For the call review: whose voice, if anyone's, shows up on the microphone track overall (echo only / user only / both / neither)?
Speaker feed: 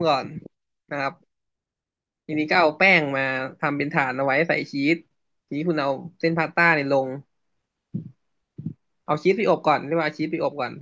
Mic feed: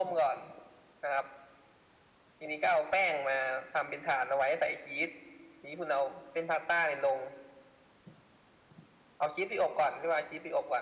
echo only